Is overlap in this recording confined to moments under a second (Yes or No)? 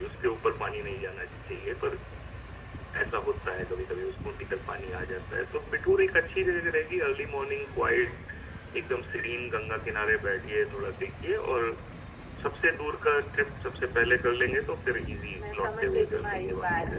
No